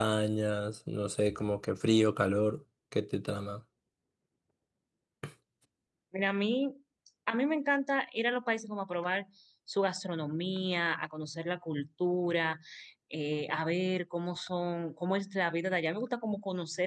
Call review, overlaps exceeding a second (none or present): none